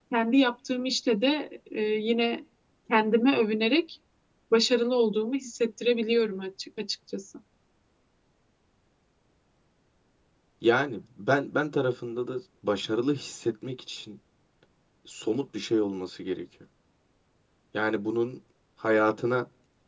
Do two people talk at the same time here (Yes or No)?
No